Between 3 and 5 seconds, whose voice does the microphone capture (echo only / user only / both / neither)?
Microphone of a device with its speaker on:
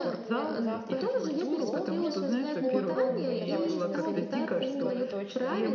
both